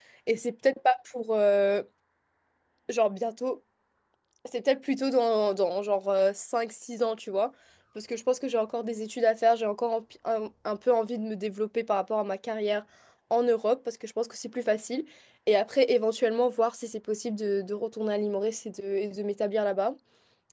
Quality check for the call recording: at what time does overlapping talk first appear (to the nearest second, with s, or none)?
none